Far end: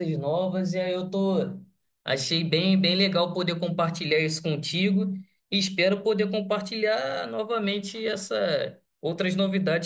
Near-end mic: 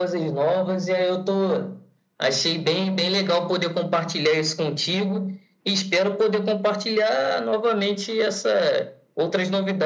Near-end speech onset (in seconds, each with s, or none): none